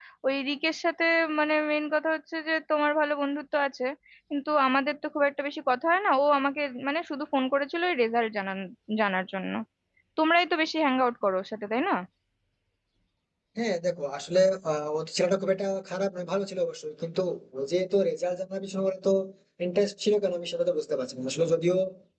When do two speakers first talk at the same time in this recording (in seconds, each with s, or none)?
none